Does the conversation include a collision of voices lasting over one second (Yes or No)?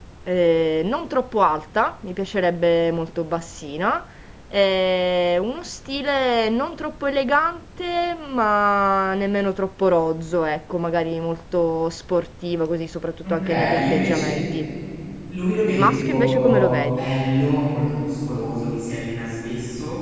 Yes